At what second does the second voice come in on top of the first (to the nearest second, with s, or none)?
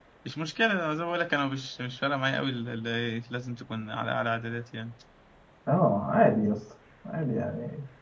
none